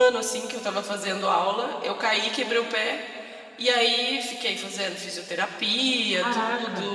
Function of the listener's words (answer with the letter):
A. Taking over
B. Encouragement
B